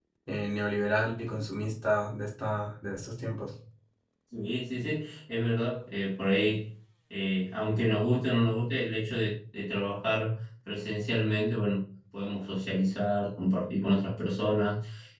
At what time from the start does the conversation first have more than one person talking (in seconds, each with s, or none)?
none